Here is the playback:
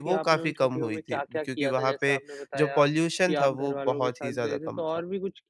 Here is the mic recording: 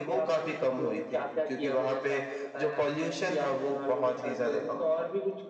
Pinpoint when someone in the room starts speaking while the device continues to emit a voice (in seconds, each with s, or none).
none